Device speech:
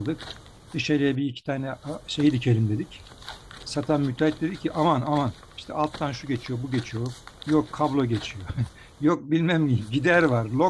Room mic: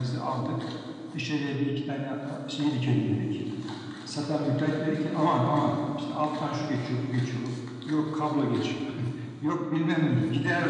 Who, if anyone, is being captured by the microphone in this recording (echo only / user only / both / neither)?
echo only